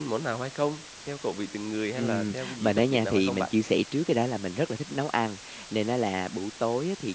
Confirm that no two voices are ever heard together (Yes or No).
No